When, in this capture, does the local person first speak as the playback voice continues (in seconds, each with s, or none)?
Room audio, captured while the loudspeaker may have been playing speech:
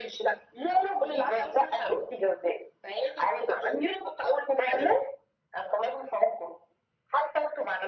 none